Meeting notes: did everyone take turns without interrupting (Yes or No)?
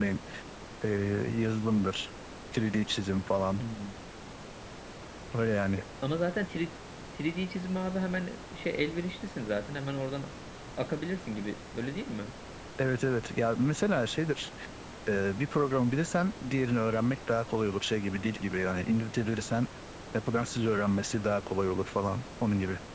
Yes